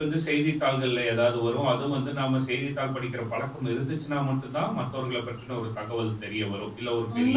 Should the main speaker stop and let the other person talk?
Yes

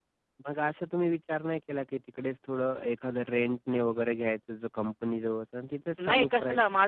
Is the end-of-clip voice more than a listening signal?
Yes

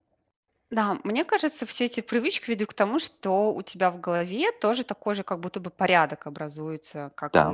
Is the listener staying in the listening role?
Yes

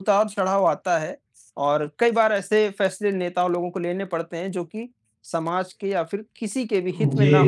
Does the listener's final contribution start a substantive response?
Yes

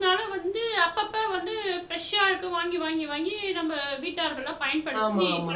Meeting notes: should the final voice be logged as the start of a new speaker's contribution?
Yes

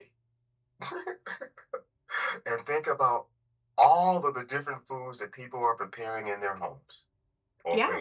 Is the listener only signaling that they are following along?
Yes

